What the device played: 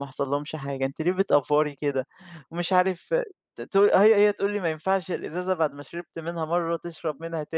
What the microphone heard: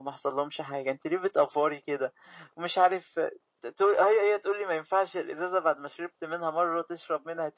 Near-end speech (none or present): none